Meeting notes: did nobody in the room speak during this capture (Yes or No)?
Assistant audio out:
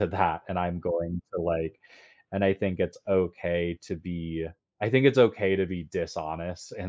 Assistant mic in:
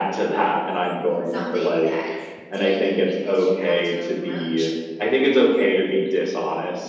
No